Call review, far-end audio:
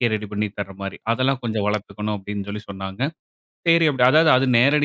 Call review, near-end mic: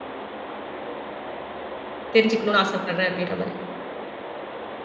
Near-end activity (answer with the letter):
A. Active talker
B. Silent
A